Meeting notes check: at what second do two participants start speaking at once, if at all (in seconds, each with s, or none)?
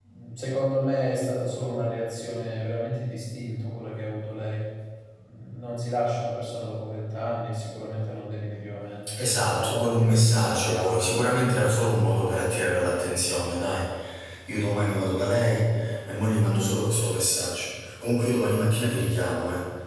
9.5 s